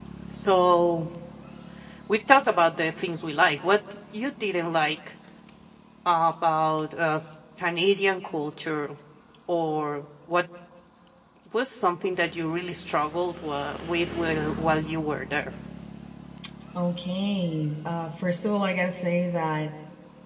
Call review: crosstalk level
none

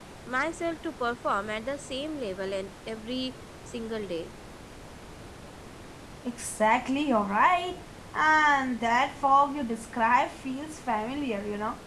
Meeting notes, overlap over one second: none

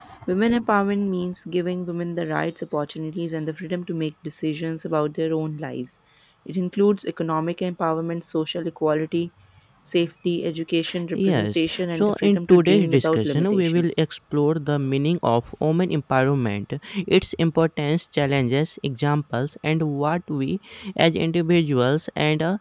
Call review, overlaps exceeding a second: present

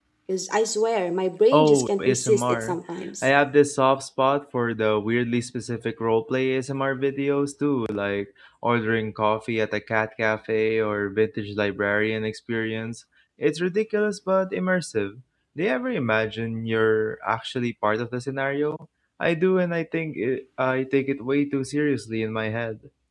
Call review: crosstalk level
present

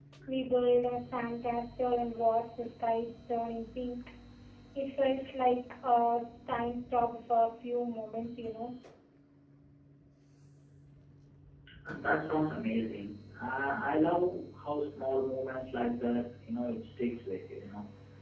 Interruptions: none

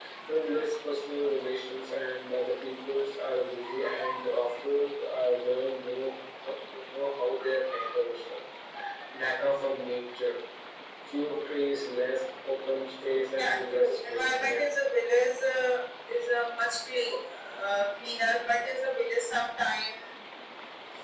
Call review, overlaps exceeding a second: present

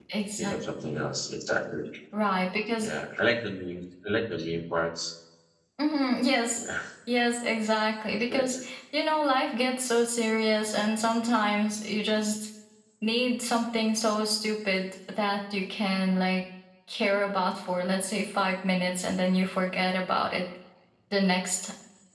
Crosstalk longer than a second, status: none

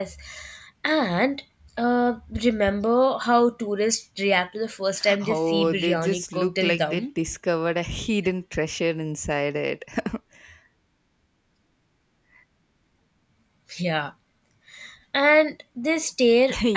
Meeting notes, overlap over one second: present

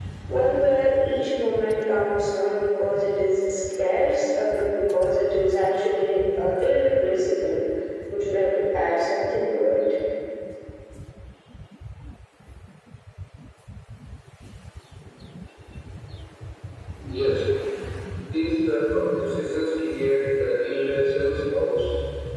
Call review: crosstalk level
none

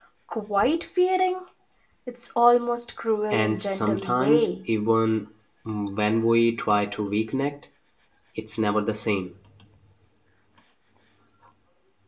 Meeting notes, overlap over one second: present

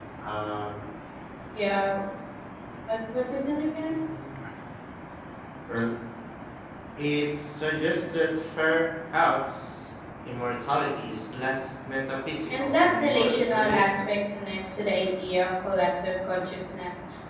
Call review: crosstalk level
present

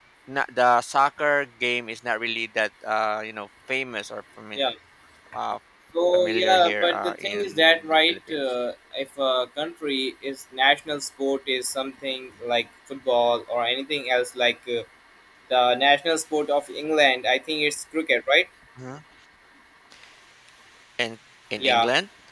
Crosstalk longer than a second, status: present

